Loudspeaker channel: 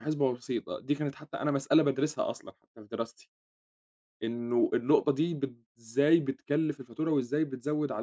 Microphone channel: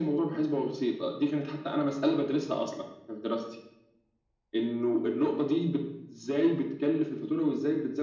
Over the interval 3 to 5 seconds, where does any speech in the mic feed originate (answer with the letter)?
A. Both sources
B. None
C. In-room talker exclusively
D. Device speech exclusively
D